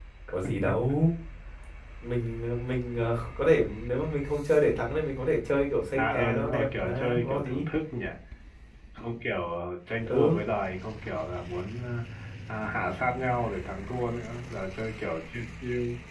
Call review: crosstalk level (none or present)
present